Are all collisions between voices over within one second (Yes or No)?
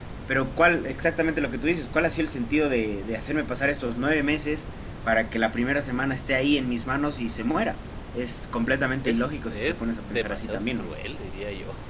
No